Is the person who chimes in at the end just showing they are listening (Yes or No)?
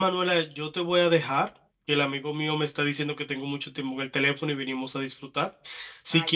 Yes